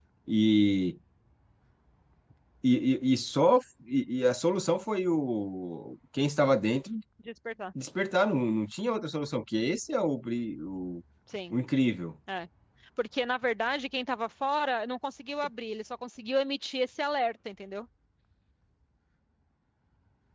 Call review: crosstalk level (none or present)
none